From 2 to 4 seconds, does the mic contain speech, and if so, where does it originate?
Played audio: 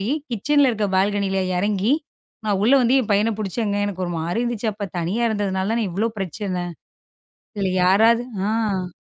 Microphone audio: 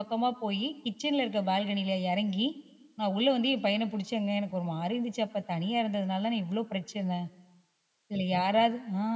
echo only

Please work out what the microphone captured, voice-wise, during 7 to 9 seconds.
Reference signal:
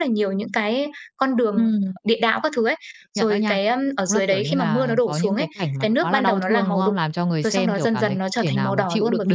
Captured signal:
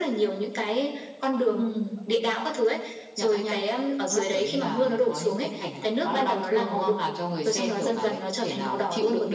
echo only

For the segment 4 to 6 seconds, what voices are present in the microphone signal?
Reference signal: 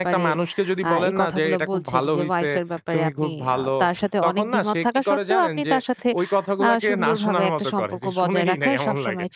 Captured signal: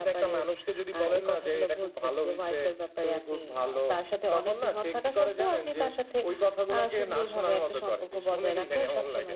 echo only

